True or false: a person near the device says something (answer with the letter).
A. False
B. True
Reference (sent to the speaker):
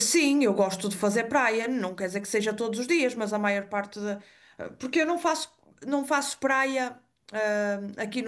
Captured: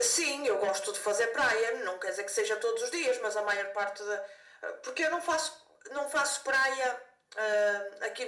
A